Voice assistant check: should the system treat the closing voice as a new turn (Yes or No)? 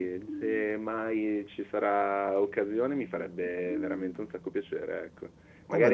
No